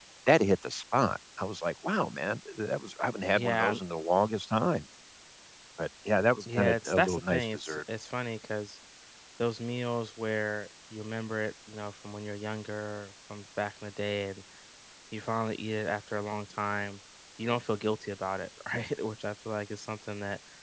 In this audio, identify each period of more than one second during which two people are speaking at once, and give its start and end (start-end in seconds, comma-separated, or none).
6.6-7.8